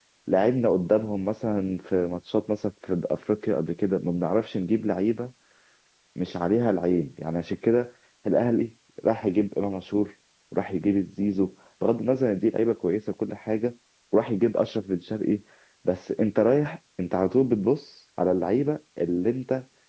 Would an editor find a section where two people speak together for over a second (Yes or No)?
No